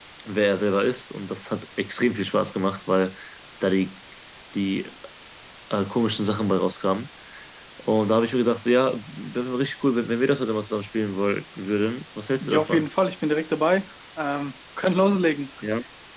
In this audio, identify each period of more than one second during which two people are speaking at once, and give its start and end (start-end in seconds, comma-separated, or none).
none